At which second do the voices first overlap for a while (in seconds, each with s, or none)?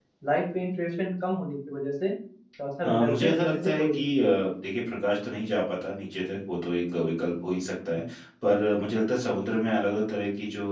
2.8 s